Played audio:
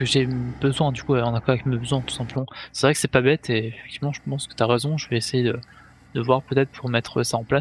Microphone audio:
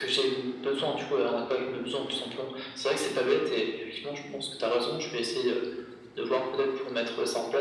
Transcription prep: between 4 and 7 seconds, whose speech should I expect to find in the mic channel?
echo only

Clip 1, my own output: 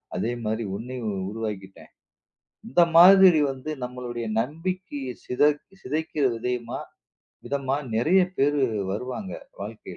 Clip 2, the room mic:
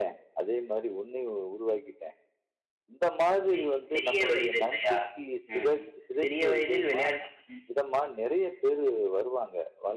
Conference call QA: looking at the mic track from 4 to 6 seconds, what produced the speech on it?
both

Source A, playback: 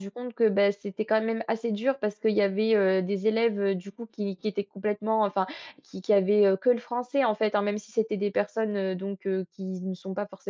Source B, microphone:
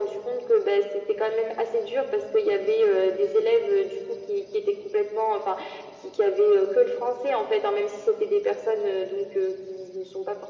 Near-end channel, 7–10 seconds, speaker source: echo only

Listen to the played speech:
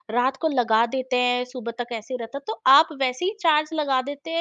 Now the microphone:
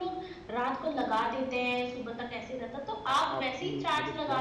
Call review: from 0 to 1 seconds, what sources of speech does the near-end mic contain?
echo only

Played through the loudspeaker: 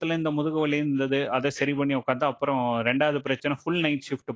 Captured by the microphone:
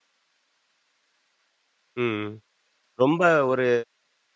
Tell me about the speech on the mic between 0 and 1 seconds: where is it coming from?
neither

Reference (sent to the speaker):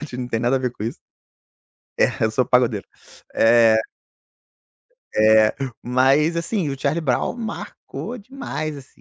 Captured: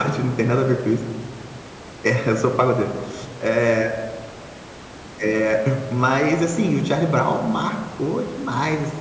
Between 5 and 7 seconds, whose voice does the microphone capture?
echo only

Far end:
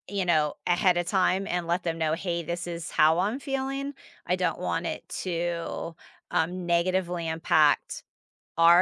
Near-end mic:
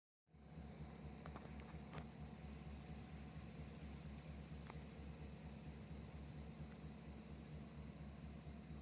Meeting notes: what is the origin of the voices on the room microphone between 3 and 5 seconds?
neither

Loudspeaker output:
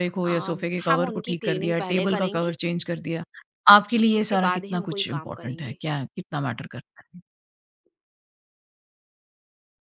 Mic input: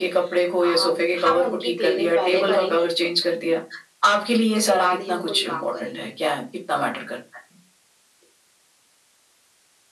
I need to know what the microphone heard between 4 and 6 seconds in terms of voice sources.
echo only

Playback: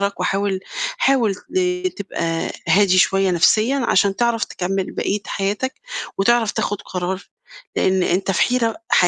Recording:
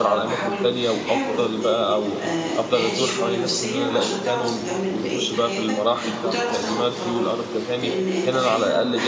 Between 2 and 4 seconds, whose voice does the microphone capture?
both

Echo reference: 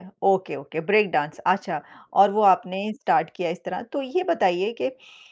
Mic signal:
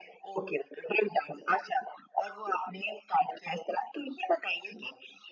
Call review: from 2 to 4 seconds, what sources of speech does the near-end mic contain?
echo only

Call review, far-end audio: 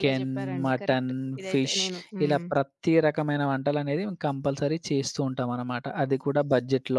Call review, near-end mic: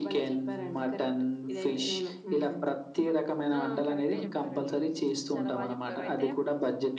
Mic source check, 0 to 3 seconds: echo only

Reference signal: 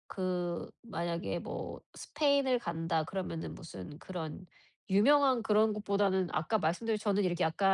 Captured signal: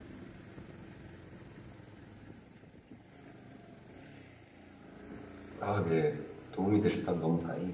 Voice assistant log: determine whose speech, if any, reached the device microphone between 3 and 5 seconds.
neither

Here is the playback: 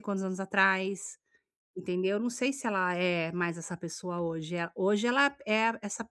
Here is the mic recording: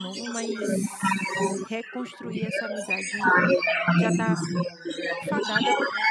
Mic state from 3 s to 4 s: both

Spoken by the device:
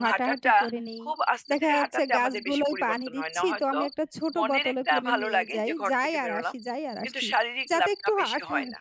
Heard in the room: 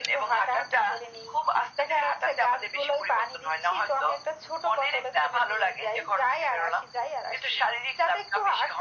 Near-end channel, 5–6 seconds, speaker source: echo only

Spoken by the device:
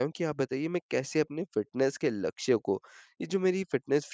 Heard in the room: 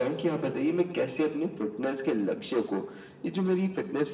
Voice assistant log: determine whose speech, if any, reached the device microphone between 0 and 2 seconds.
echo only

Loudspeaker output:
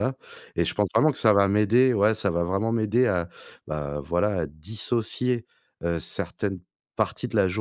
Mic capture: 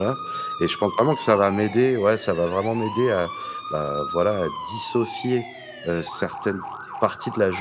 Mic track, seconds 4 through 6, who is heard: echo only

